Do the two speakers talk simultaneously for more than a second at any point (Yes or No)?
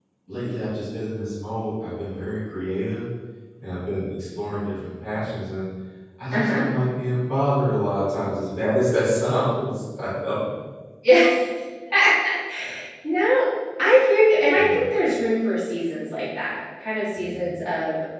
No